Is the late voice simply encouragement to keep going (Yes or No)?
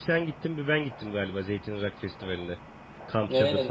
No